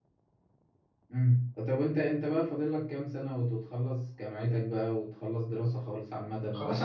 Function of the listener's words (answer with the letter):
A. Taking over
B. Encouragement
A